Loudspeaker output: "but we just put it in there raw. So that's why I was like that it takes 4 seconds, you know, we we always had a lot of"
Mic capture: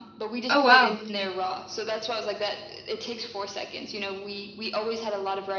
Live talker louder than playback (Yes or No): Yes